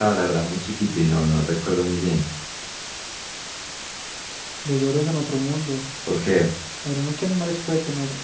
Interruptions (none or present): none